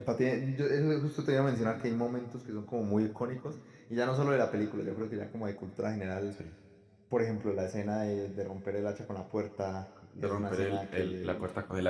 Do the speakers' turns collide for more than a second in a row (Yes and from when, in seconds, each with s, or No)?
Yes, from 10.2 s